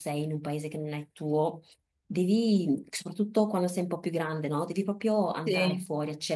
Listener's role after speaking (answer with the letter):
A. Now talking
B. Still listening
B